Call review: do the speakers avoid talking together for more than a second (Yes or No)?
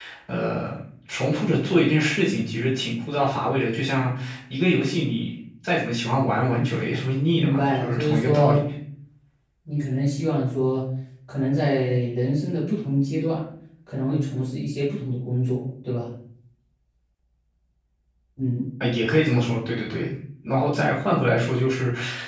No